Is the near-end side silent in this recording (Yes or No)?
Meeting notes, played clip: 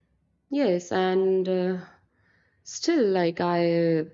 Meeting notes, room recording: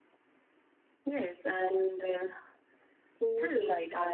No